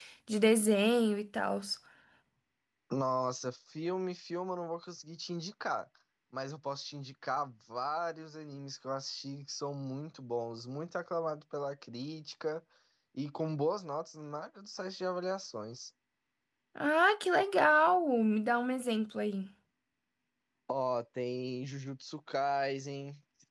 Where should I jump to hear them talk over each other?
none

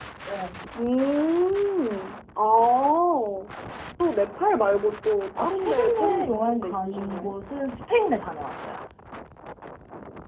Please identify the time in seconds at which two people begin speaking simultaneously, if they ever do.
5.4 s

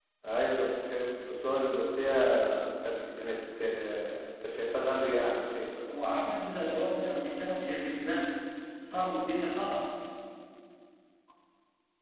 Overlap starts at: none

